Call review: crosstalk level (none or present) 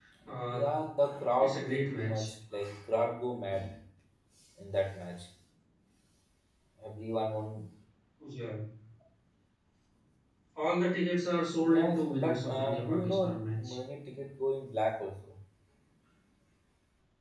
present